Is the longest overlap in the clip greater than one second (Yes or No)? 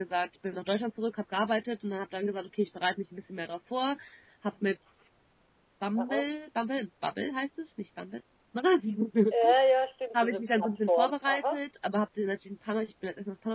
Yes